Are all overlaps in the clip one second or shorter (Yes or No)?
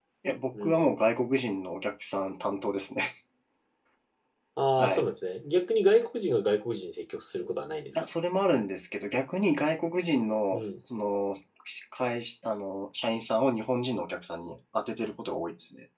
Yes